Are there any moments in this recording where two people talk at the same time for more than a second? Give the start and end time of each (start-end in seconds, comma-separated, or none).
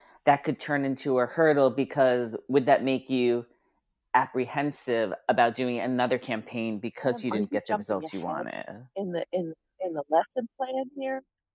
7.0-8.4